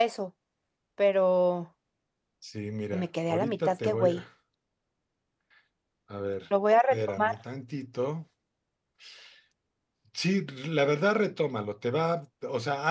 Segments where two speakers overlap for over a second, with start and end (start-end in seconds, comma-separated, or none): 2.9-4.2